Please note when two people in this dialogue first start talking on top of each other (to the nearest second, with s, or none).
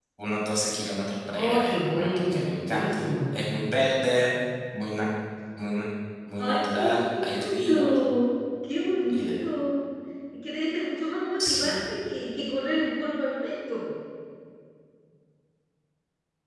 1 s